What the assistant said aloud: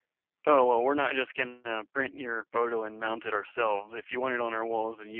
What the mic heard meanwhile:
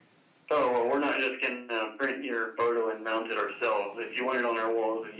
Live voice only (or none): none